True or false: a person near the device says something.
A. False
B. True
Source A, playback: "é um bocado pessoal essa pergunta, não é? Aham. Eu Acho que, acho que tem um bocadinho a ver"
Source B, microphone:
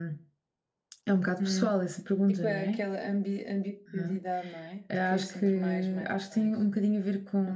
B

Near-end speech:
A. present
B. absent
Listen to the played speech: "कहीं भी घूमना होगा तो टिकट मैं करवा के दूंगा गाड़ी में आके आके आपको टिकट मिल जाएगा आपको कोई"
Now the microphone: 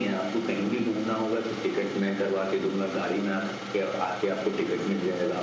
B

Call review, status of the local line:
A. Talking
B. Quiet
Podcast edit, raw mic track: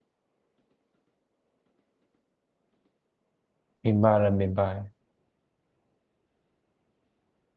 A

